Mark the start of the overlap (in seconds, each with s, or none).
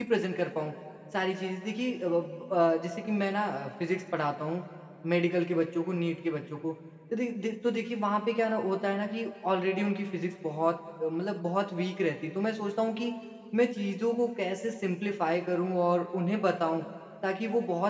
none